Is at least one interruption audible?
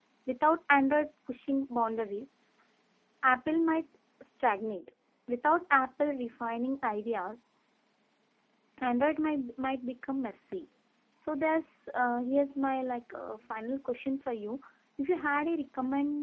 No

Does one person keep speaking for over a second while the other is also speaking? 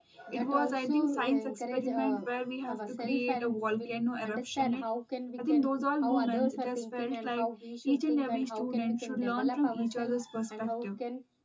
Yes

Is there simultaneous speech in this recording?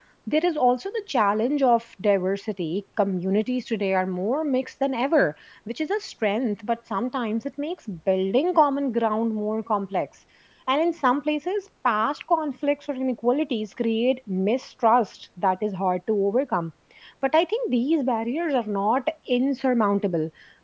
No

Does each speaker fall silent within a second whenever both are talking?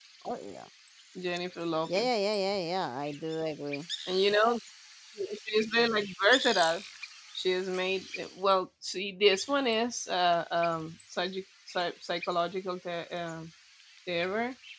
Yes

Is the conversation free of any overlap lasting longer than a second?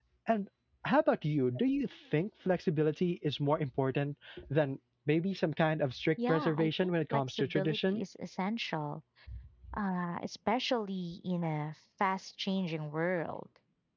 No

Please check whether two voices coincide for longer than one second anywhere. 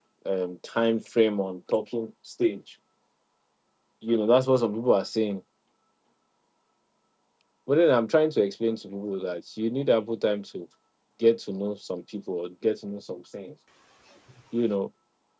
No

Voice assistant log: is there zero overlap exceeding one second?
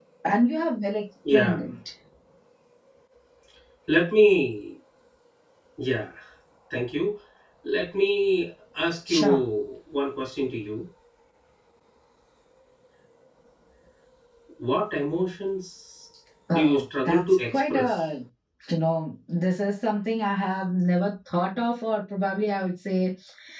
No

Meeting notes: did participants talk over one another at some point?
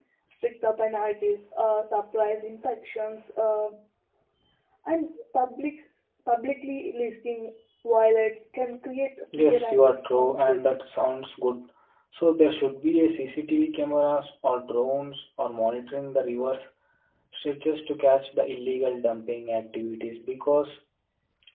Yes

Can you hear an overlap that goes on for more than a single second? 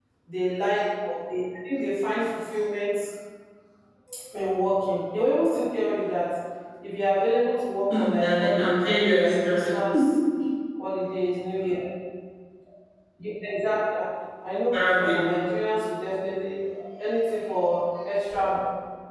Yes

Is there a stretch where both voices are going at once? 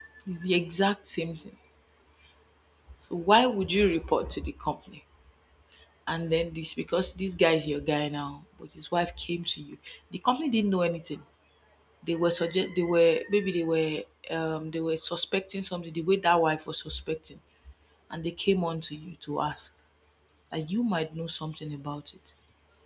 No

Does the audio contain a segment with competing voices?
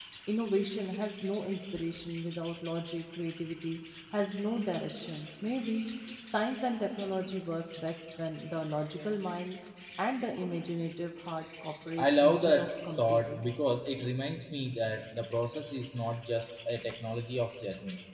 Yes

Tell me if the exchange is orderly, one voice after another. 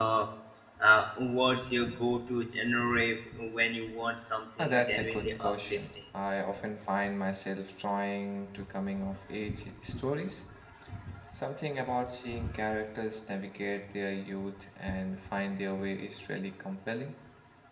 No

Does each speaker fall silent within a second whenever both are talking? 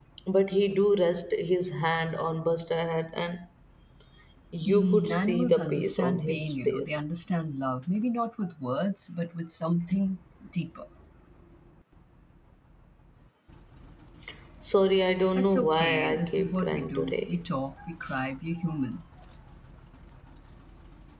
No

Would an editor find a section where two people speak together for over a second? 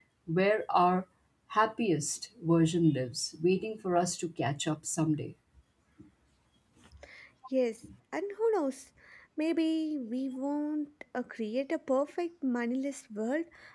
No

